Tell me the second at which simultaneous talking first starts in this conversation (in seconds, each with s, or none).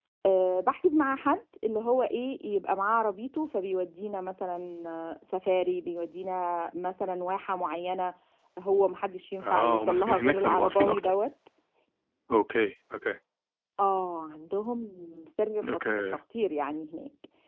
9.4 s